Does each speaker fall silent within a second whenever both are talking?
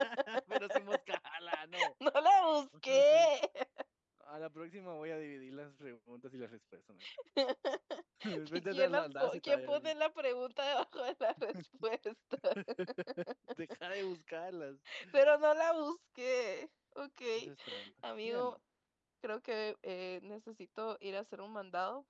No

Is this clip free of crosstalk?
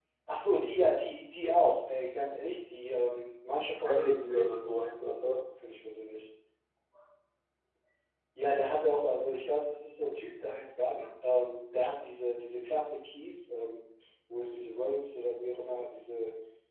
No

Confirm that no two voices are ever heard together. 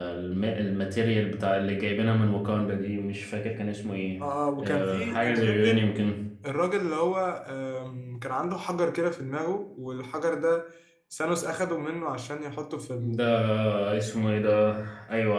No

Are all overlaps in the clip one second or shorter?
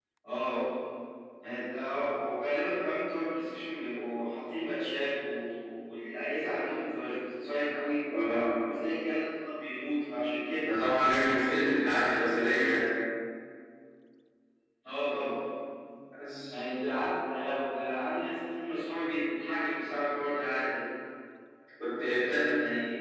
Yes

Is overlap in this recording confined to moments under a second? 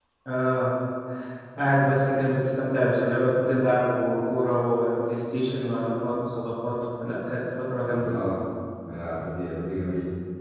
Yes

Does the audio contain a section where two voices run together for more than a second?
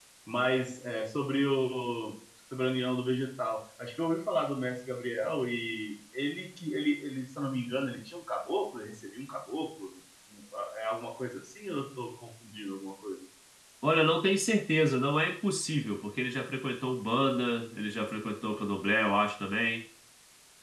No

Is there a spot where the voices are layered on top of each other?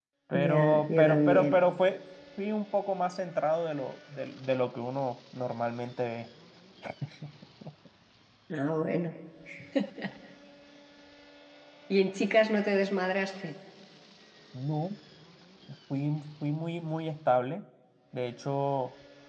Yes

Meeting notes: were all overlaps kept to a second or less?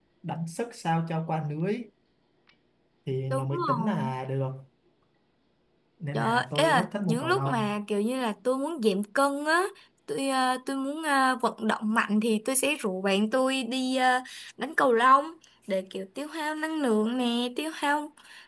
No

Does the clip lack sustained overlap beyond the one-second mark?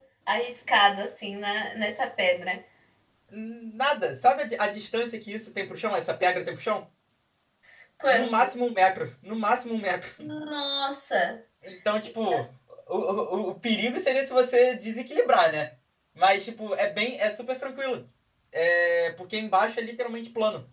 Yes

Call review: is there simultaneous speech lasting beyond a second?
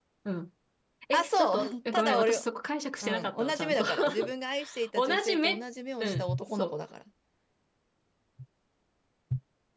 Yes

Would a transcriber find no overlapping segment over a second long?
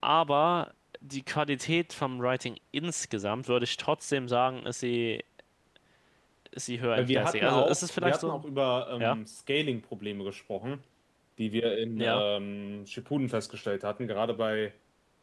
No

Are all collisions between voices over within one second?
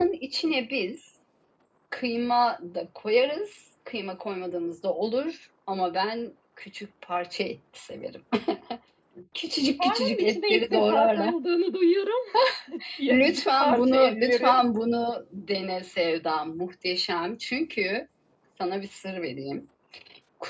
No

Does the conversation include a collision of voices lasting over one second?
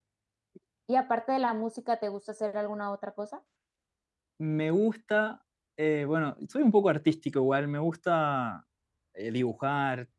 No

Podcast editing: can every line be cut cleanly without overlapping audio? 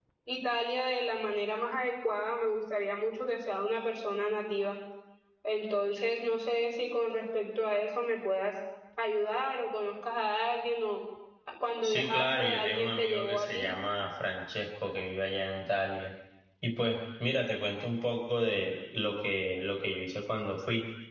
No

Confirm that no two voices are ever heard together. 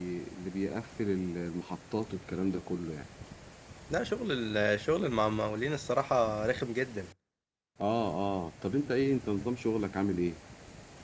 Yes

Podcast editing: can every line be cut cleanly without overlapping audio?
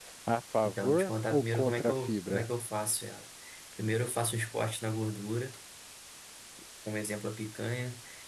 No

